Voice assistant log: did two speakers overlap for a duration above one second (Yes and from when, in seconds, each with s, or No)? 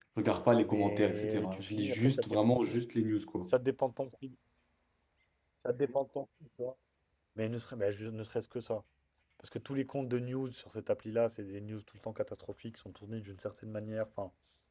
Yes, from 0.6 s